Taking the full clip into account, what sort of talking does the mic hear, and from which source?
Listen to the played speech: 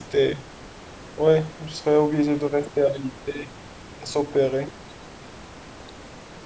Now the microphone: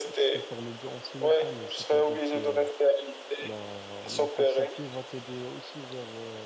both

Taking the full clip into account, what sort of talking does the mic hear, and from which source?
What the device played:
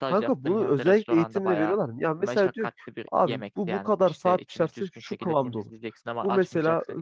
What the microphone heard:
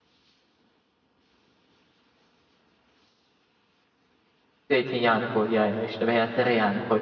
user only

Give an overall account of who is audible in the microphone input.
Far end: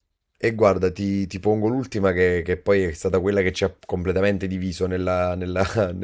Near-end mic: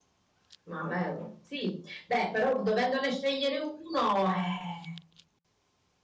user only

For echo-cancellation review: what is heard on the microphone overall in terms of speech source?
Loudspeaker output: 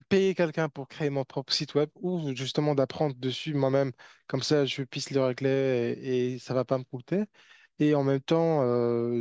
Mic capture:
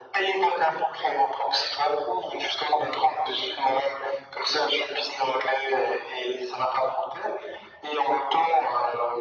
echo only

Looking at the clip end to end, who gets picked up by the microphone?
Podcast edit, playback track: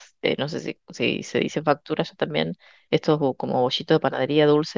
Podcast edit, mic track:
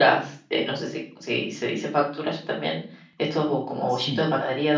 both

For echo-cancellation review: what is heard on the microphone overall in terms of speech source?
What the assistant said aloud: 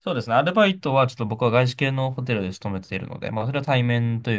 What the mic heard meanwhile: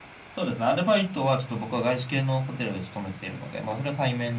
echo only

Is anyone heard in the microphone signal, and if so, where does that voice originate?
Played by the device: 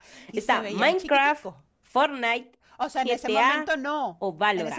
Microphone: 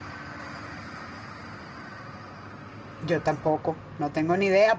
user only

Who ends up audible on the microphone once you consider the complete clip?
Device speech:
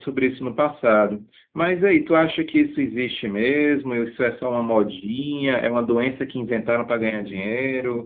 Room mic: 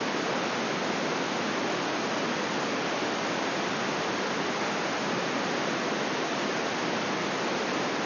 neither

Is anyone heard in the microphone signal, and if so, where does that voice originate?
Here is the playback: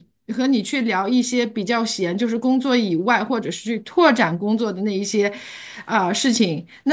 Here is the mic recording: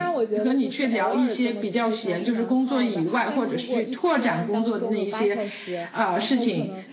both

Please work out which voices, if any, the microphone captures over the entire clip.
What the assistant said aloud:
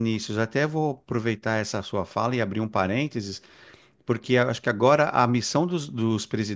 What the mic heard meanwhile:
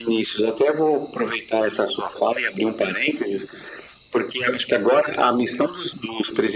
echo only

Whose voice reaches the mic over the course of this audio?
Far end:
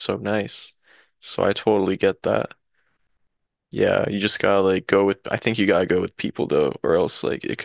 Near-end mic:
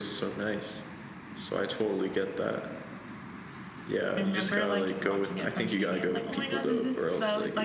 both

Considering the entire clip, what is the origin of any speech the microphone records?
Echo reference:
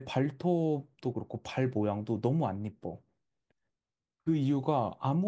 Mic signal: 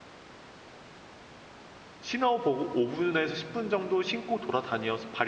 user only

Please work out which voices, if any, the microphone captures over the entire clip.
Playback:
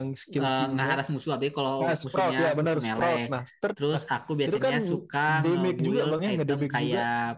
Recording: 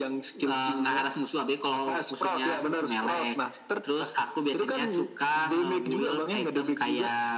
echo only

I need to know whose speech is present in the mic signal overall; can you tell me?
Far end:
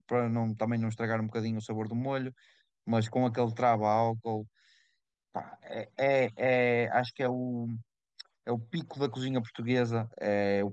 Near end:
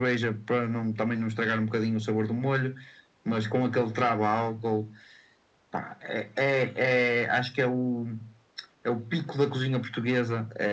echo only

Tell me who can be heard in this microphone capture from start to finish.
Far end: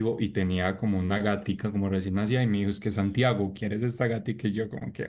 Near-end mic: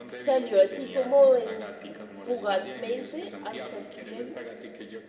both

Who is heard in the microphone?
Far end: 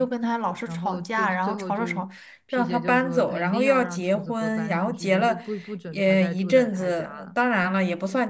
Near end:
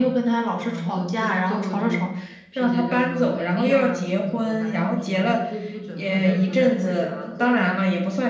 both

